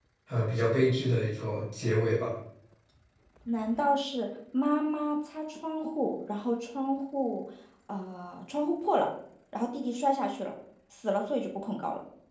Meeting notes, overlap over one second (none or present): none